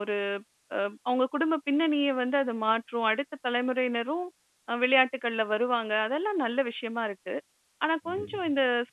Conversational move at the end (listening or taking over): listening